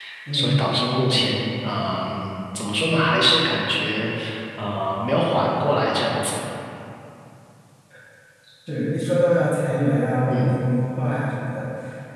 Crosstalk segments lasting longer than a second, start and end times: none

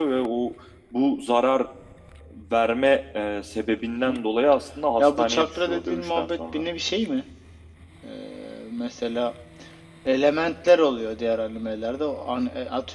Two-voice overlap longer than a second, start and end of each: 5.0-6.6

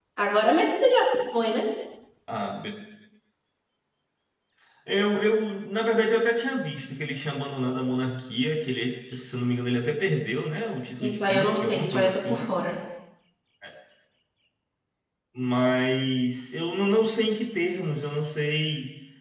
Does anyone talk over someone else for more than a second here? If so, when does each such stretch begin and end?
11.0-12.4

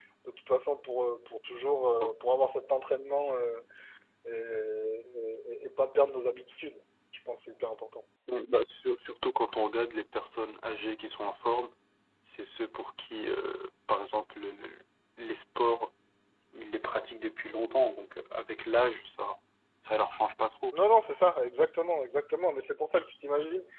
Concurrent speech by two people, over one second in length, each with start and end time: none

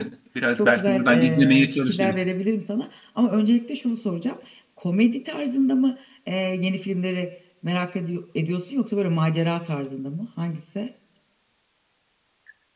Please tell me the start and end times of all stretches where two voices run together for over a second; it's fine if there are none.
0.6-2.1

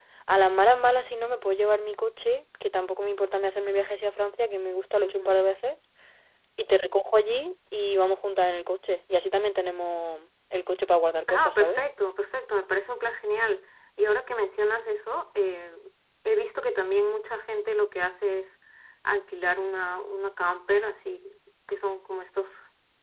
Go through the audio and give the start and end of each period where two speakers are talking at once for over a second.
none

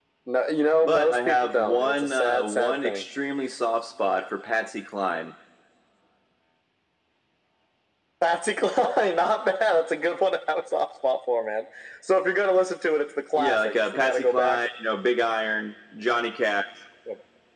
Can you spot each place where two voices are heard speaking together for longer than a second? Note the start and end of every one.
0.8-3.0, 13.4-14.6

